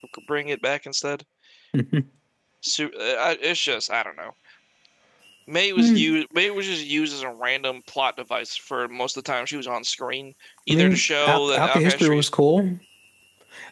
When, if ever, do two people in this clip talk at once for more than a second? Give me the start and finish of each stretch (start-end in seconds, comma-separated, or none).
10.7-12.2